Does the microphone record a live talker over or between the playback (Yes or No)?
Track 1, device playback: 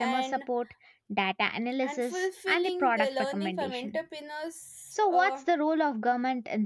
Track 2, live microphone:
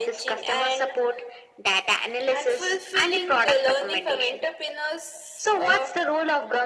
No